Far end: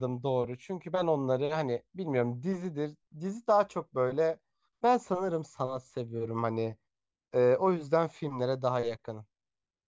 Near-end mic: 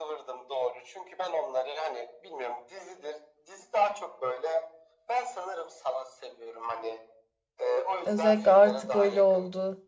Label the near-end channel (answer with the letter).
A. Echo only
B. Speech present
B